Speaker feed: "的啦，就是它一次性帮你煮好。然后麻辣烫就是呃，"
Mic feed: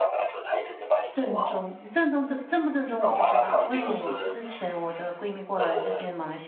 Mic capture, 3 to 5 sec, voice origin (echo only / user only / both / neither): both